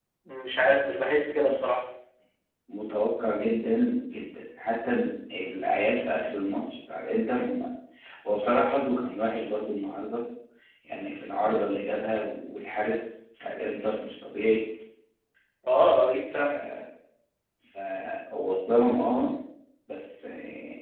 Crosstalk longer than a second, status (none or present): none